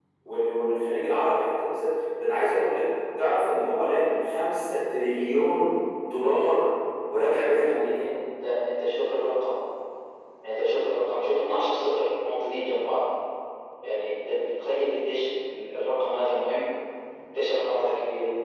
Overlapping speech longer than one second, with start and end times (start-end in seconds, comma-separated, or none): none